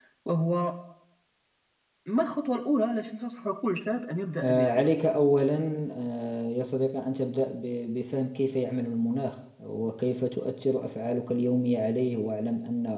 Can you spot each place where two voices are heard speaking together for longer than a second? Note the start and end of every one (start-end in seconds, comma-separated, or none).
none